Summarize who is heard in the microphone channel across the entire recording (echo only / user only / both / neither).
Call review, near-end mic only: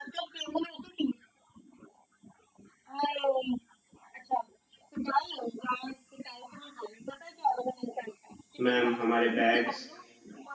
both